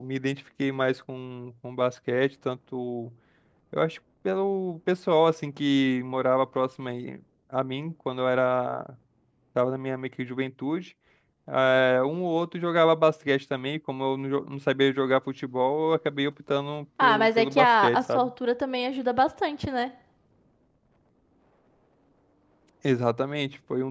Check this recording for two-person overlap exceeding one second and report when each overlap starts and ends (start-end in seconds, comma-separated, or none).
17.0-18.3